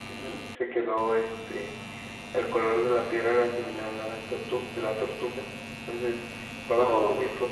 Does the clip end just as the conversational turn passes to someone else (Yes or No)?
No